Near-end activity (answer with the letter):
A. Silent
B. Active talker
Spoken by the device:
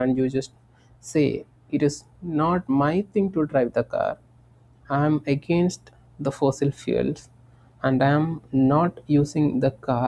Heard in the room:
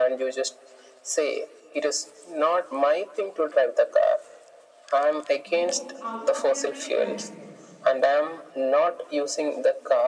B